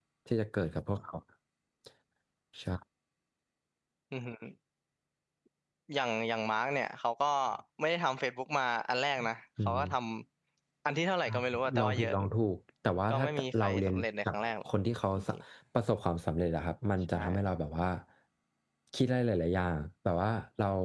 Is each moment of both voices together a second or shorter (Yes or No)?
No